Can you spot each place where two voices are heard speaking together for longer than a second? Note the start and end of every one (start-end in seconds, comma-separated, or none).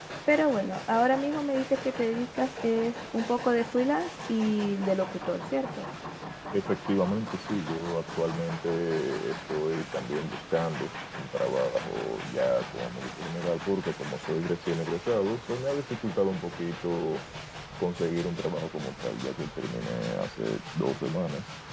none